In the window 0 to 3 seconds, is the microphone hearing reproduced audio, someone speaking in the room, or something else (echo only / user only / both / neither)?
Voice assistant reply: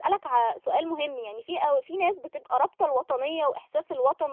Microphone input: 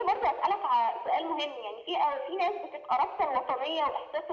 echo only